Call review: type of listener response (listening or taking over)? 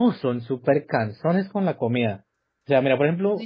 listening